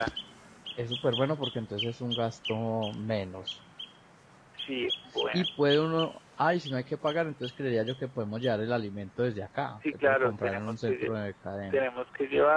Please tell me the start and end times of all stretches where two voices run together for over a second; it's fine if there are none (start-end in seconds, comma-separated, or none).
9.8-11.1